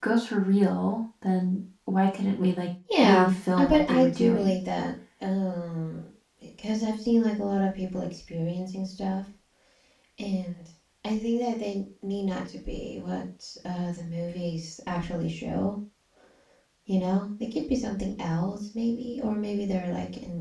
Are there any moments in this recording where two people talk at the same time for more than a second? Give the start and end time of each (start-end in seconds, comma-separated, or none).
3.0-4.5